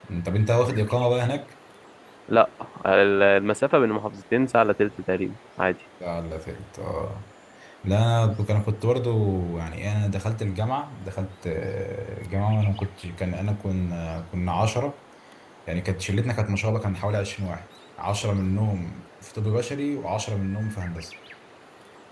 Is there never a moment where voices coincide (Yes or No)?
Yes